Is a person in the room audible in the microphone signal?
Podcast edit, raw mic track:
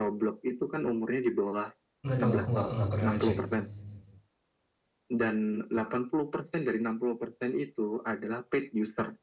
Yes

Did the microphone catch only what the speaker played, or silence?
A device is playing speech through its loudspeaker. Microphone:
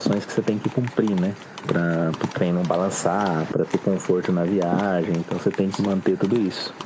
Yes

